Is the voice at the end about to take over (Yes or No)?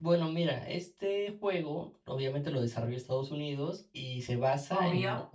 No